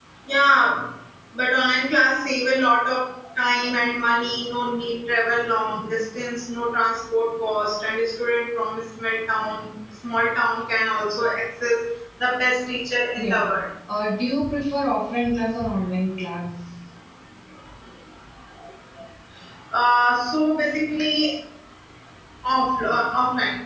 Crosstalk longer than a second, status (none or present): none